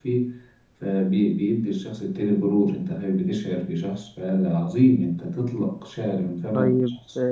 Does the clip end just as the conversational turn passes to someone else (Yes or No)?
Yes